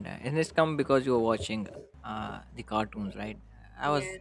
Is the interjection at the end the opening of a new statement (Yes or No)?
No